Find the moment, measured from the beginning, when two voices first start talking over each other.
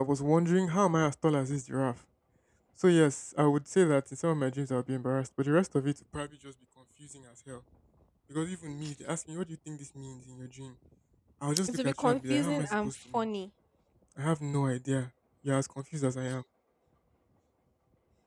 12 s

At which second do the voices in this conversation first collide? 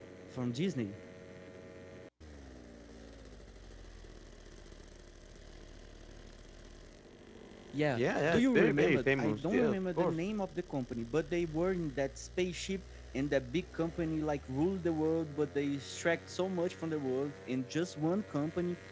8 s

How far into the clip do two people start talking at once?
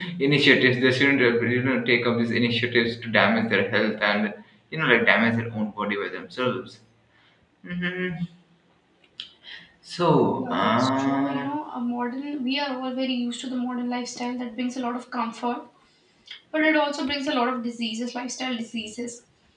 10 s

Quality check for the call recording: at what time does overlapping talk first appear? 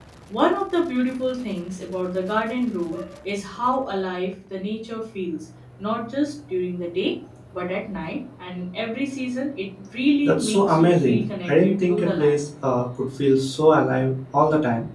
10 s

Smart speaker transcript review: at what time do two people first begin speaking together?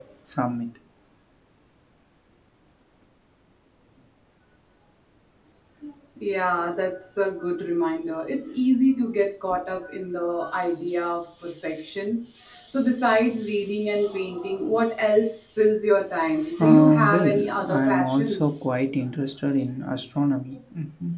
17 s

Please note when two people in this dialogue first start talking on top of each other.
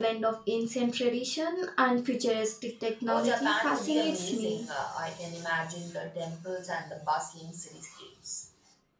3 s

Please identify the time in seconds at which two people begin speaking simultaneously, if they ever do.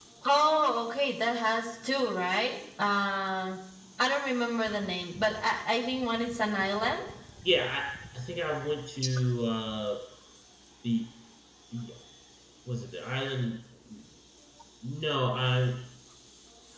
none

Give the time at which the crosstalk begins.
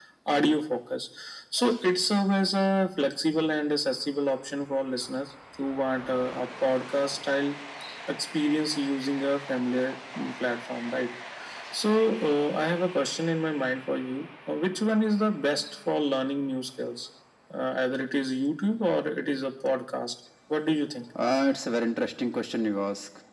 none

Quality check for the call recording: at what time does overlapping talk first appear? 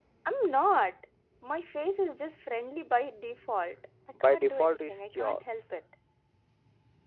4 s

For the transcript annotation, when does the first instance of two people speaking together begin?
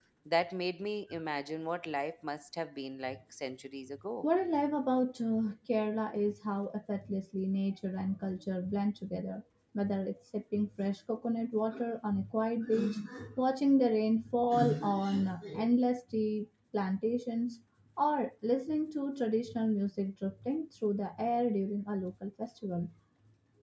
none

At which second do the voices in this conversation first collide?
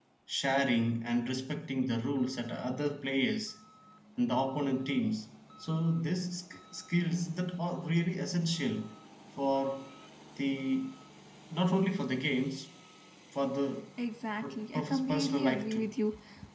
14 s

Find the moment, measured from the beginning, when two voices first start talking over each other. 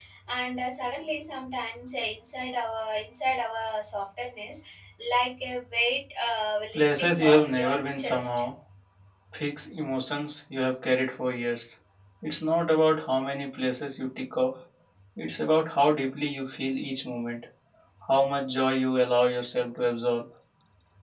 7 s

